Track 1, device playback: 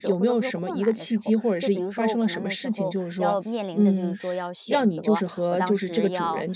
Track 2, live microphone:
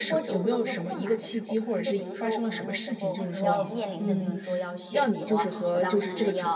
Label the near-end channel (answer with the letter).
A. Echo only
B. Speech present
B